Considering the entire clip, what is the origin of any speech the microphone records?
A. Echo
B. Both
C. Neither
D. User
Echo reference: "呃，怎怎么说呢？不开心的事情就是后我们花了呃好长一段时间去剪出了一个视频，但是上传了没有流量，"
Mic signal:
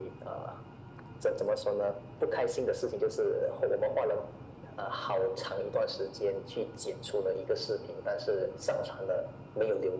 A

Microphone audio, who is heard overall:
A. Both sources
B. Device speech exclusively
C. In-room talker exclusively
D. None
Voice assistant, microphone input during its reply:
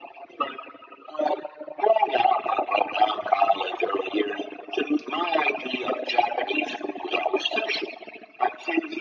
B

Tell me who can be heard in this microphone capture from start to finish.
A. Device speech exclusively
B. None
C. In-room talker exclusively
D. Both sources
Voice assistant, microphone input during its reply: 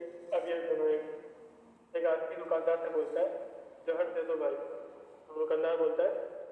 A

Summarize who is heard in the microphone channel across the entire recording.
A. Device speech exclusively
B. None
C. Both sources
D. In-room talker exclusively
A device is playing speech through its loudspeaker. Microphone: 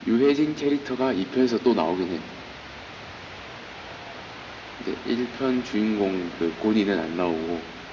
A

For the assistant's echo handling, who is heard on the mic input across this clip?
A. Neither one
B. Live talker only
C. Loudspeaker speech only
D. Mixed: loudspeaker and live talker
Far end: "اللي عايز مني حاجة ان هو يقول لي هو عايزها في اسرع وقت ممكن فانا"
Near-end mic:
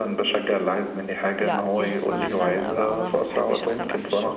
D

